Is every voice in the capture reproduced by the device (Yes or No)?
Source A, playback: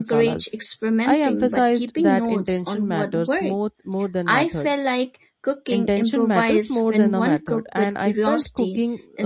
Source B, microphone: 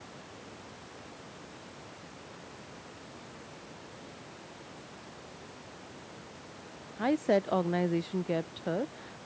No